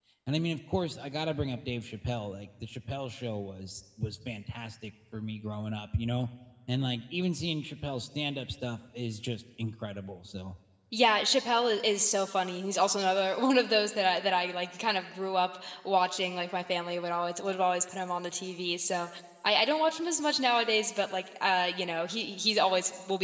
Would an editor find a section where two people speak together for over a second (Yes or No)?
No